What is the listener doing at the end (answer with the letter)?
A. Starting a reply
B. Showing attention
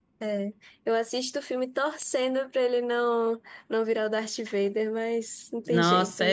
A